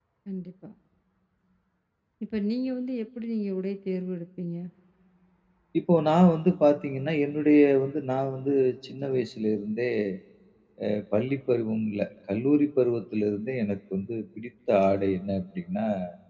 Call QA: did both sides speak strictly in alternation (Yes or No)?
Yes